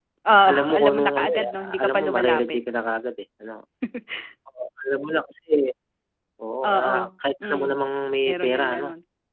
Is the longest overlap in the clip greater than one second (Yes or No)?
Yes